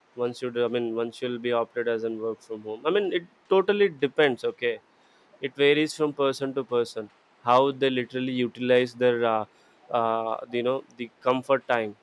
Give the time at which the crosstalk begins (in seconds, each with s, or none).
none